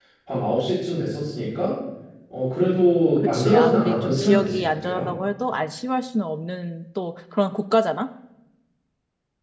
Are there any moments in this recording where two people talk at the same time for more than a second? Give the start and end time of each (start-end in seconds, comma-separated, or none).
3.2-5.0